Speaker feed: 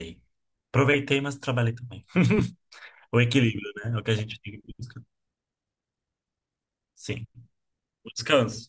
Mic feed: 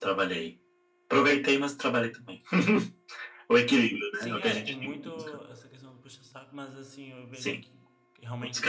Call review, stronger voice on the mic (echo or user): echo